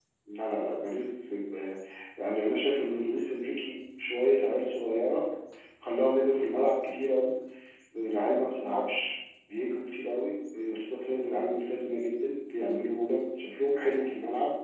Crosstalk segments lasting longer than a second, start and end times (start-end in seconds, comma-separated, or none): none